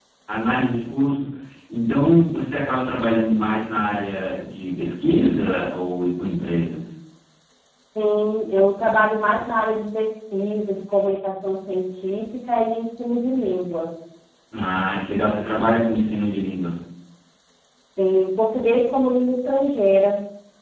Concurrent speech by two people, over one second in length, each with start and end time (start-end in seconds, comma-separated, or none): none